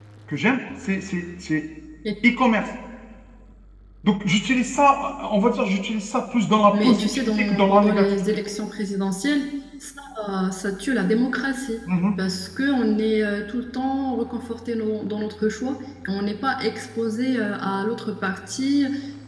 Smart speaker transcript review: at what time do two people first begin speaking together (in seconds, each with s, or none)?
6.7 s